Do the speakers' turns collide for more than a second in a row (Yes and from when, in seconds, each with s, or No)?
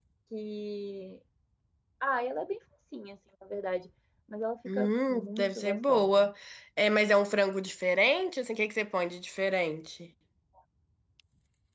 Yes, from 4.6 s